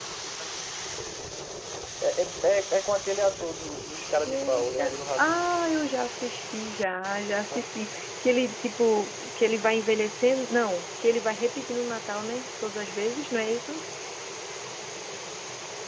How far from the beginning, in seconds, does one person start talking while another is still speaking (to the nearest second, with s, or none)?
4 s